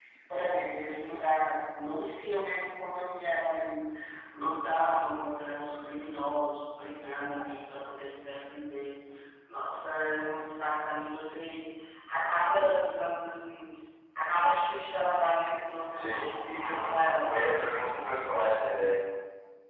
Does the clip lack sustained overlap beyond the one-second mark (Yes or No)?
No